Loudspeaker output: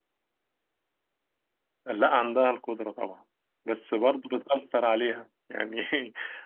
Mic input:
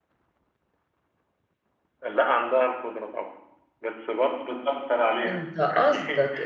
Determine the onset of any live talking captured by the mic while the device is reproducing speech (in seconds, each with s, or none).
5.3 s